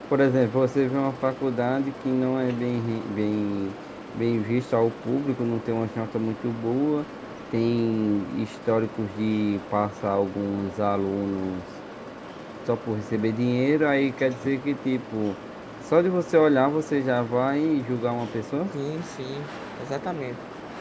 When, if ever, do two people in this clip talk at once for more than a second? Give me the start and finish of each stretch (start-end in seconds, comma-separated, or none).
none